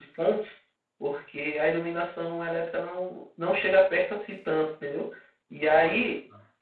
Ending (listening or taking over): listening